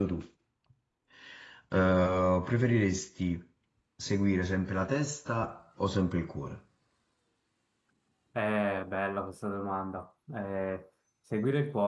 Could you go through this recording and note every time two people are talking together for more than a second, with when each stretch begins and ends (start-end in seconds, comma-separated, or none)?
none